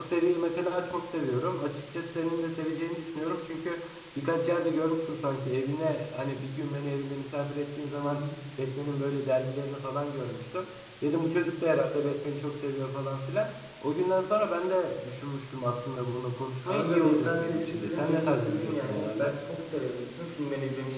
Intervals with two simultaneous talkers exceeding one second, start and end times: 16.6-19.3

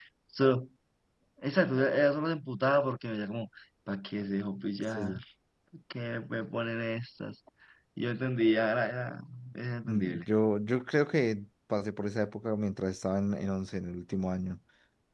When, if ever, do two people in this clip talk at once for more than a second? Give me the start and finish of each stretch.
none

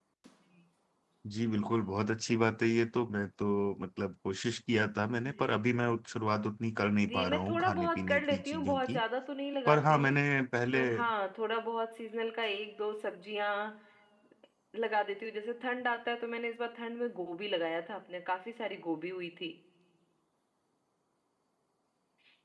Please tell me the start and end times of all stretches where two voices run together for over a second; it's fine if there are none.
7.1-9.0

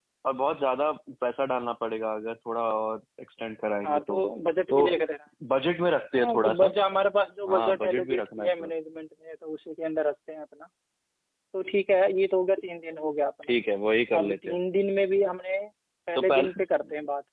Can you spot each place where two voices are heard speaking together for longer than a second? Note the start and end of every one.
7.5-8.7

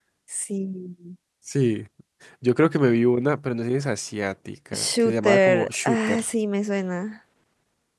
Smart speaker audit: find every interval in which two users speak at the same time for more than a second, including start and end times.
4.7-6.2

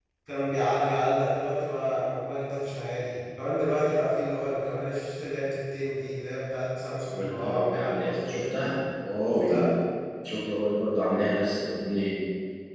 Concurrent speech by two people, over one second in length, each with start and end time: 7.1-8.7

